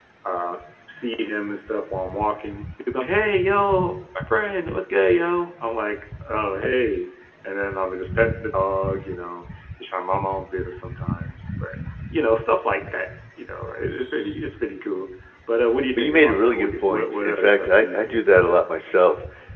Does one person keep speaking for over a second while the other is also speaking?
Yes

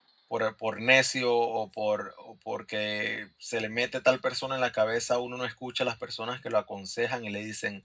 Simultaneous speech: No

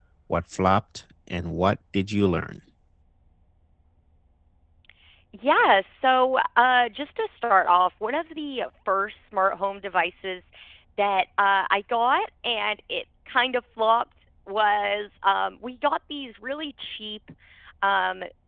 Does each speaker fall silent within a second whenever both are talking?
Yes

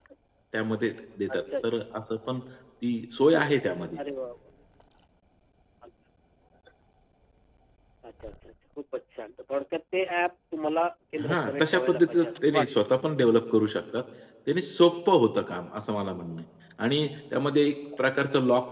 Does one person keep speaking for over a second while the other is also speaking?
Yes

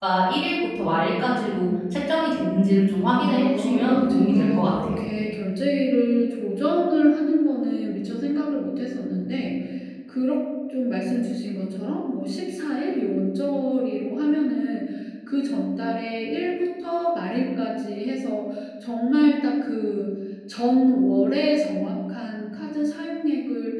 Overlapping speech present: Yes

